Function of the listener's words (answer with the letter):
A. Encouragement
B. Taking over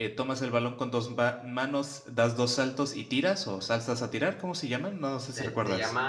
B